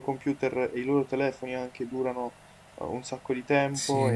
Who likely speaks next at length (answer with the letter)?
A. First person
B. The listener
A